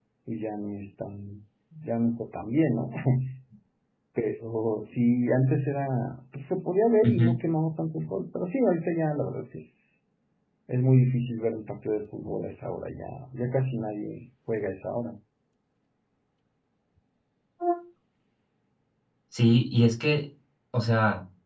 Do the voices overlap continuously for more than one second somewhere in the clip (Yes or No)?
No